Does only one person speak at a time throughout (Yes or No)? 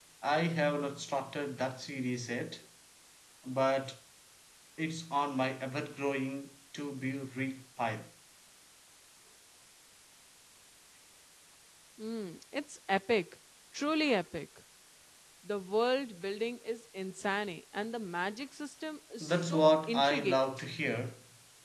No